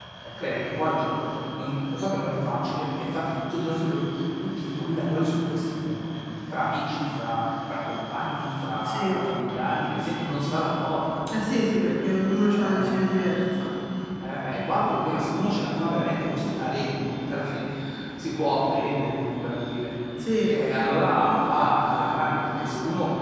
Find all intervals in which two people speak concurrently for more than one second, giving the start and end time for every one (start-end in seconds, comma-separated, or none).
none